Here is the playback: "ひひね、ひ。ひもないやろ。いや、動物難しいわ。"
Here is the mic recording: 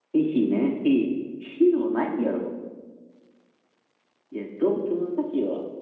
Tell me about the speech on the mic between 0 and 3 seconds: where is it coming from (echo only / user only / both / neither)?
echo only